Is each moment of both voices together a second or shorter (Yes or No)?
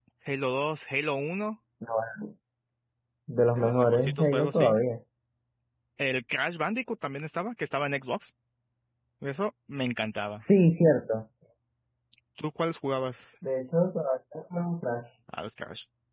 No